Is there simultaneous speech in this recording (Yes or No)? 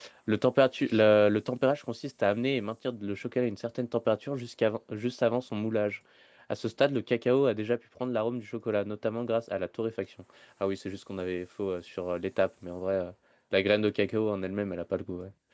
No